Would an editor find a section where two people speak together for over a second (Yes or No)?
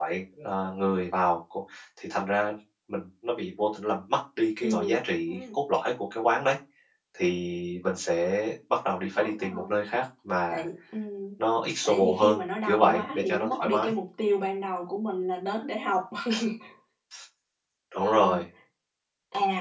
Yes